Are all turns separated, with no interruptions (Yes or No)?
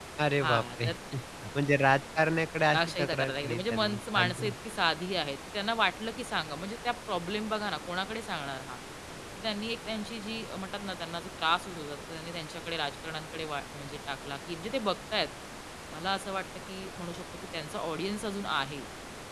No